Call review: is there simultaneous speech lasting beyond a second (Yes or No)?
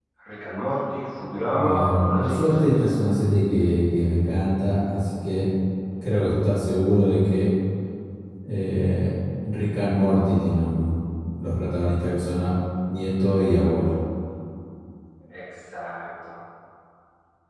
Yes